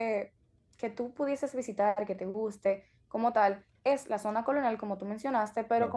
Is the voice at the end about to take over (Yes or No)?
No